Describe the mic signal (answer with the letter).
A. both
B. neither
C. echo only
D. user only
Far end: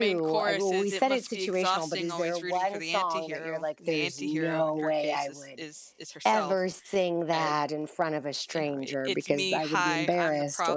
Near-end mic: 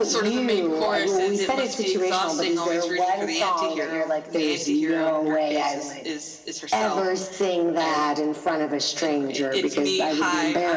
C